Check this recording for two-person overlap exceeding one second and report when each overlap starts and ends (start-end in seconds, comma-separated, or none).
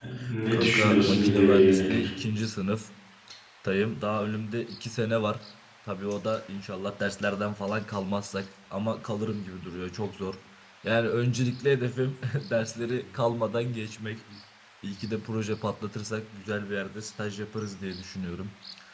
0.5-2.1